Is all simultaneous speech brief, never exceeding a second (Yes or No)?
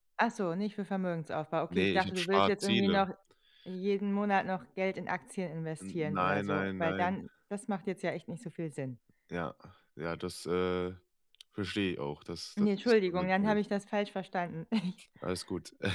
No